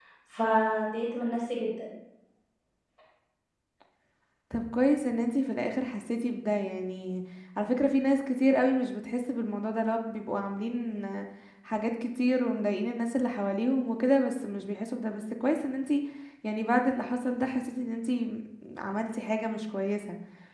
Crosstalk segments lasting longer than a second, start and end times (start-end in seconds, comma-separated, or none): none